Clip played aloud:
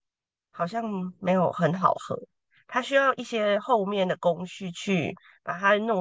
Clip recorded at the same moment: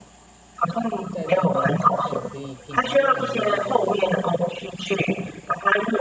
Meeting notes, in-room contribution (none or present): present